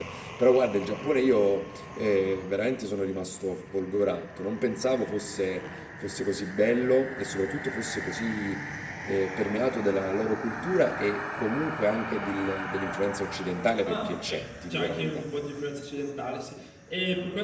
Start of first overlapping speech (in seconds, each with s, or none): 13.8 s